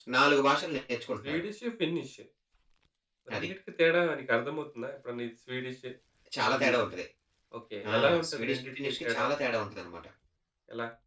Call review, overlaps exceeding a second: present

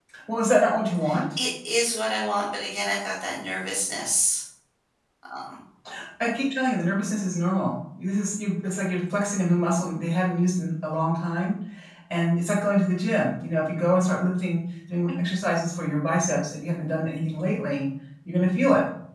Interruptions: none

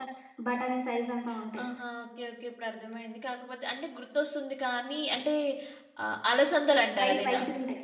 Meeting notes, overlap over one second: none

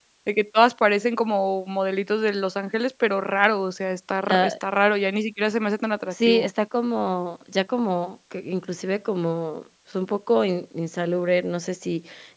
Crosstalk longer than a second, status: none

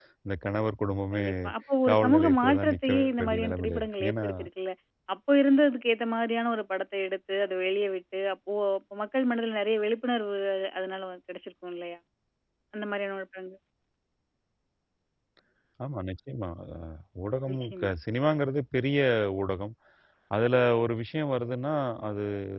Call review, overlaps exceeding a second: present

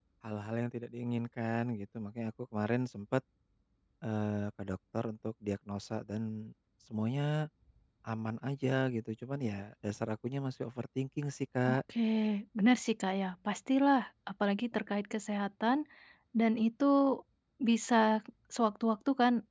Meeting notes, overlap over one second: none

